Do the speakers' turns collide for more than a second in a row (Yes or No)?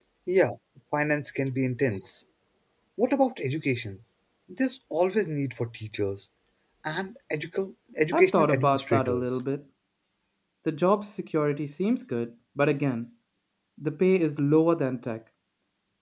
Yes